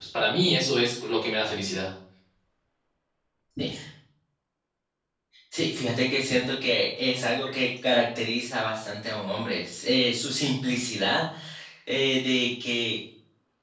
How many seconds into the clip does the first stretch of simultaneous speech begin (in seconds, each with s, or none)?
none